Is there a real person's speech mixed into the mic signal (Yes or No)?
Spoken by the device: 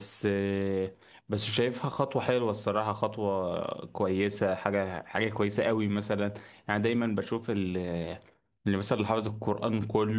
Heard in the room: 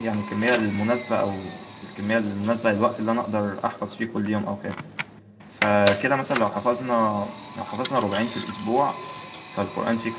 Yes